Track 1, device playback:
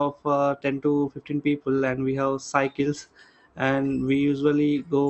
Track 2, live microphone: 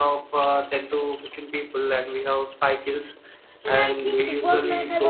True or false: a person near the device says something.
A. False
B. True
B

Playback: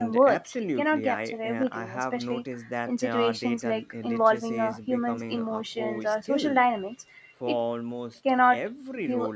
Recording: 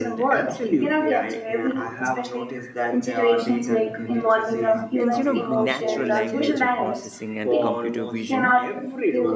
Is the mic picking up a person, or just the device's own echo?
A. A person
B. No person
A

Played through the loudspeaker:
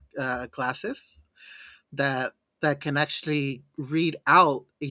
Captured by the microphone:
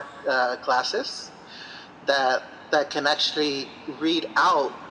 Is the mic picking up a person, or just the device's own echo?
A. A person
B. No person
B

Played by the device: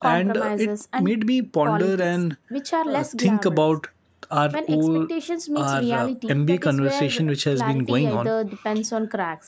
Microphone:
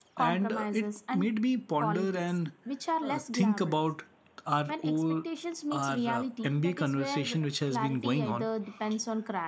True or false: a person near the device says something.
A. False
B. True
A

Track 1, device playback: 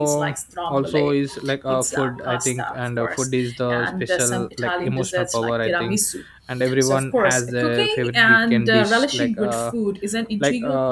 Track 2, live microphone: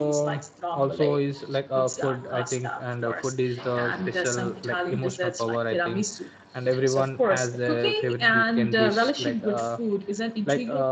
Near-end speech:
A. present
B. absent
B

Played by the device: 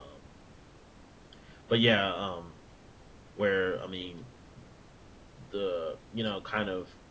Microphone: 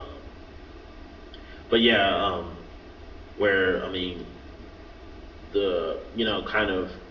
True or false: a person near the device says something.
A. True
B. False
B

